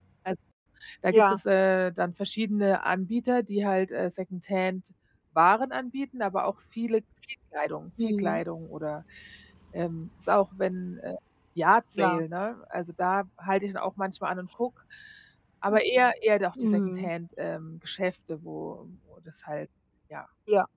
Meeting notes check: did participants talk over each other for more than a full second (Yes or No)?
No